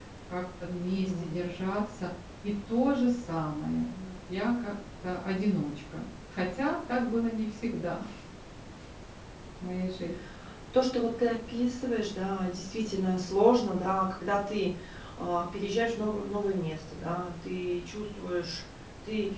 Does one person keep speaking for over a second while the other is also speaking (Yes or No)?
No